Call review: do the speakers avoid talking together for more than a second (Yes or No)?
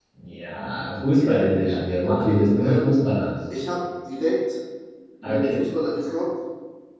No